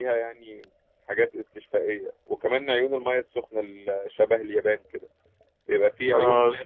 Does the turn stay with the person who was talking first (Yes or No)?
Yes